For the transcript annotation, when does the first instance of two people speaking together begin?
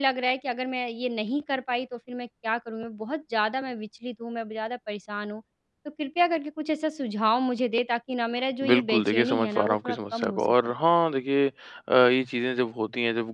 8.6 s

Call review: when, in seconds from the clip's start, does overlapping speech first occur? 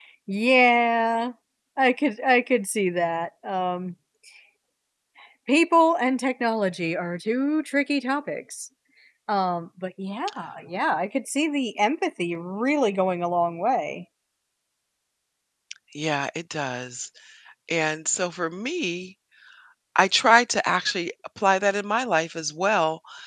none

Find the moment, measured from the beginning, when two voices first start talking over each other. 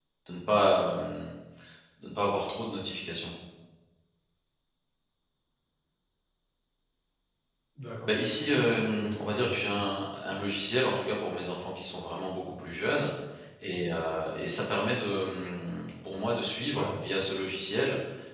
8.1 s

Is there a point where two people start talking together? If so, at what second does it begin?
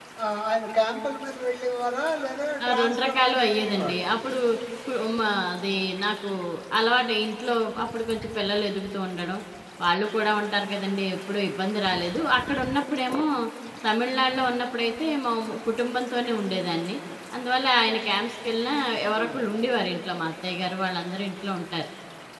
2.6 s

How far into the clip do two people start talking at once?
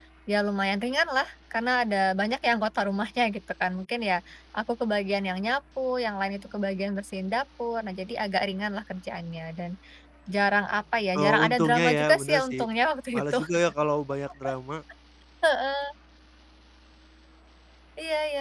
11.2 s

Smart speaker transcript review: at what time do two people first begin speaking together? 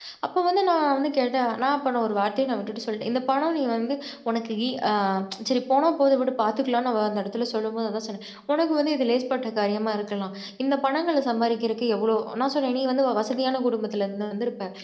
none

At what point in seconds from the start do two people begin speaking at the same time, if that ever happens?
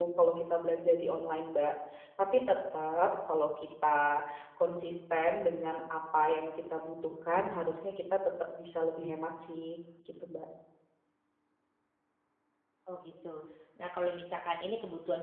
none

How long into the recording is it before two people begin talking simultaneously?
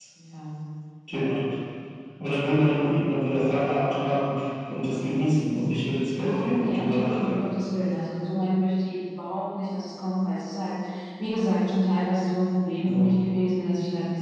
6.1 s

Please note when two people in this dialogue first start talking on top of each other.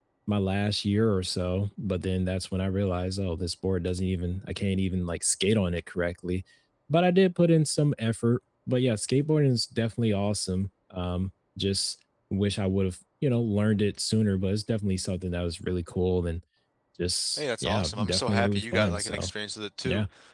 17.4 s

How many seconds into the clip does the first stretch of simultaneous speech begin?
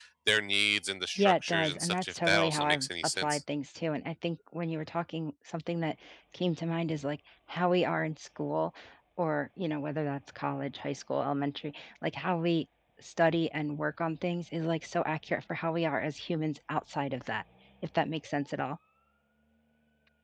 1.2 s

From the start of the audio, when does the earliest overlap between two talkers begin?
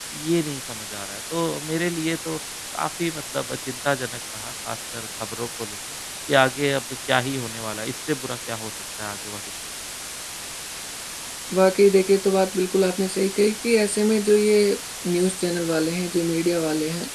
none

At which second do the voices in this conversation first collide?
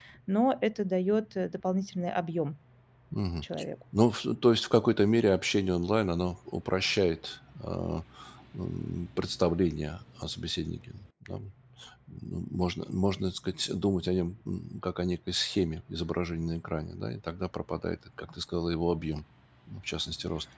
none

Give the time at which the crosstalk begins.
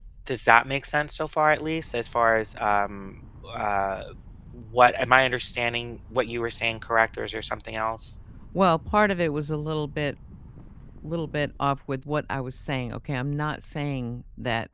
none

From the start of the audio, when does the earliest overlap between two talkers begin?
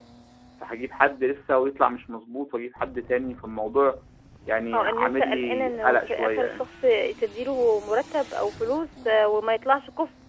4.7 s

